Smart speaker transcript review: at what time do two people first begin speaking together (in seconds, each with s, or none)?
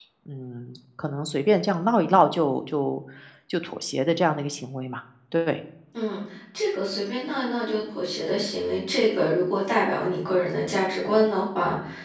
none